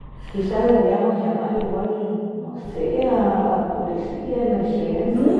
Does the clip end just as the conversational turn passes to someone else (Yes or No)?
Yes